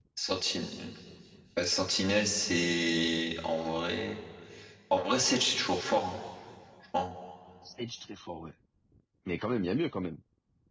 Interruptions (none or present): none